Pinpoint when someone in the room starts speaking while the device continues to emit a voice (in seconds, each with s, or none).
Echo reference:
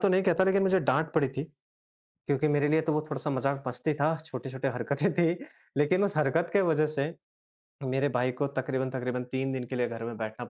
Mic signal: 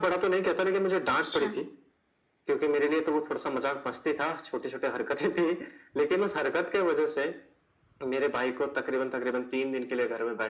1.1 s